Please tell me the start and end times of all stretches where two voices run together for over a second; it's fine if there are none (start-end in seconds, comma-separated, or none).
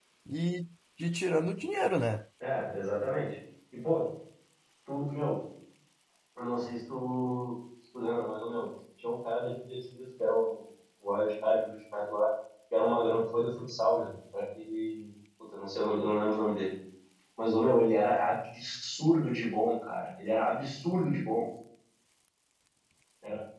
none